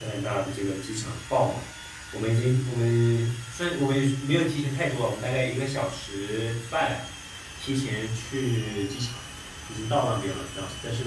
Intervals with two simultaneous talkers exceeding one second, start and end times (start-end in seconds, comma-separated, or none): none